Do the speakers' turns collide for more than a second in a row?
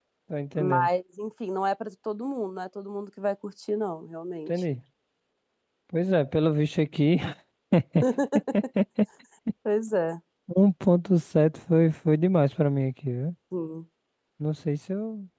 No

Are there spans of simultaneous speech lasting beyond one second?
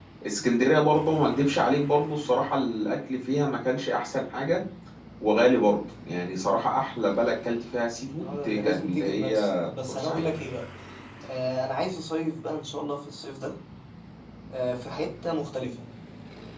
Yes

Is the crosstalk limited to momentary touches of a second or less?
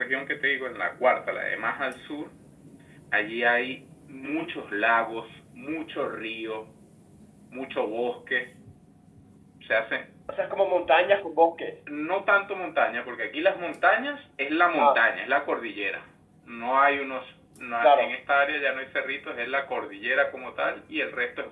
Yes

